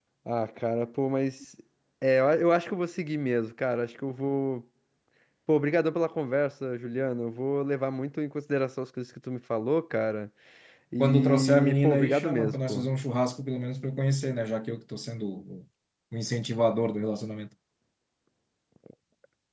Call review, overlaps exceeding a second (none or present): present